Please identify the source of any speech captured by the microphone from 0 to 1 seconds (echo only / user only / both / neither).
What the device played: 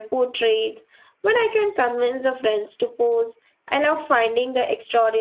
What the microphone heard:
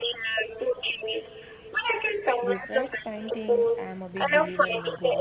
echo only